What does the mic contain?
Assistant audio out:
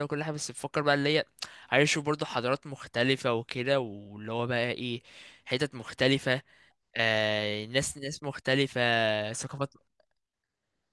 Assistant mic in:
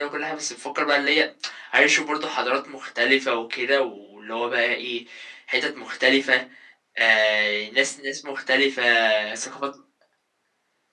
echo only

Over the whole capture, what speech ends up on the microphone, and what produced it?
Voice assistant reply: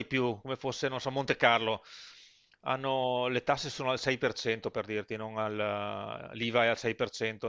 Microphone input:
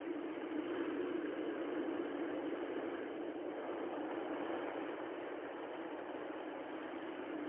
neither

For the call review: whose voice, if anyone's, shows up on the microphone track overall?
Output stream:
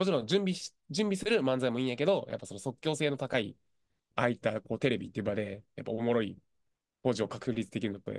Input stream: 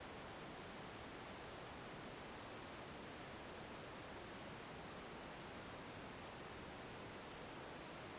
neither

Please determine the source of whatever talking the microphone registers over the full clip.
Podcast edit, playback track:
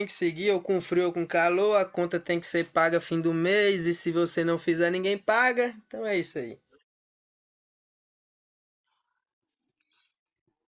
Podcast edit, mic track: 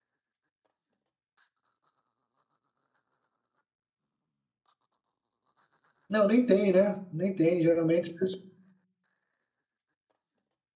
user only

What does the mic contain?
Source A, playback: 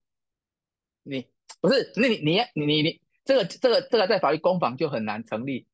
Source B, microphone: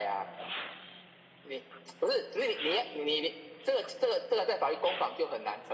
echo only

